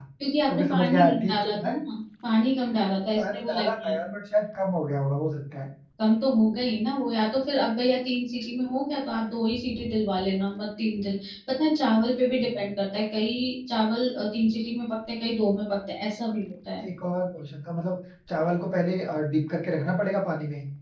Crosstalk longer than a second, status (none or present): present